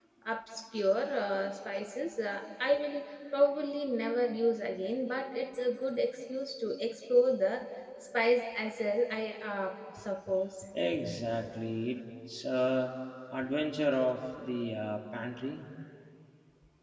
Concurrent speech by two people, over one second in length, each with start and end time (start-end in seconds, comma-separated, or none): none